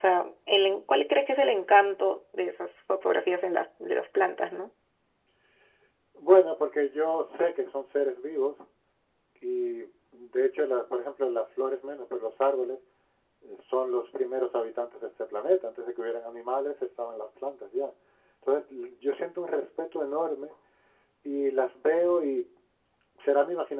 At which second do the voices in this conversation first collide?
none

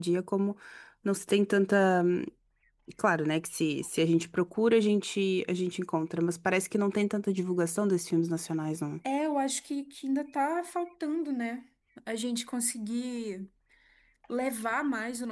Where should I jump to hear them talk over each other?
none

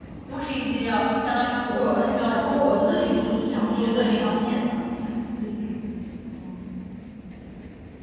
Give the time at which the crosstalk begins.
1.7 s

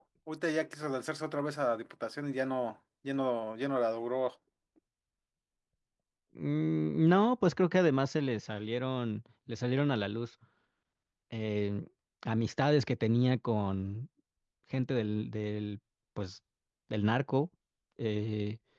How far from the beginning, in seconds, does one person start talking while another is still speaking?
none

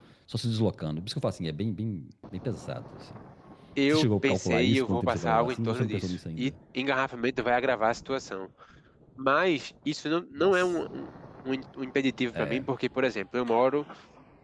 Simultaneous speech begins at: 3.9 s

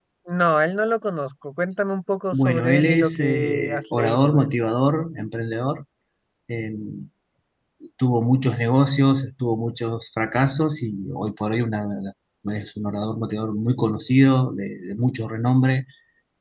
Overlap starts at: 2.3 s

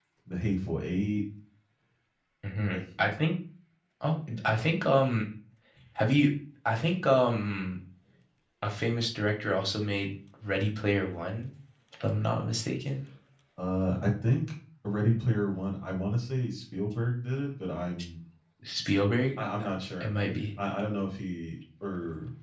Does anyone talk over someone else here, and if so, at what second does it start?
none

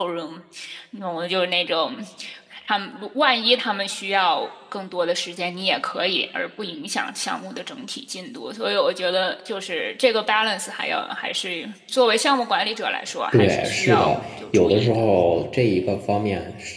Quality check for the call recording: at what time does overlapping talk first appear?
13.3 s

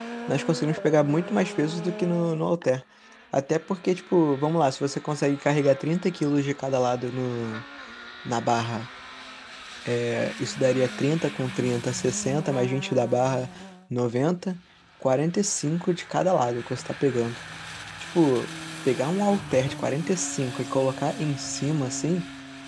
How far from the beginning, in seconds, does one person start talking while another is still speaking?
none

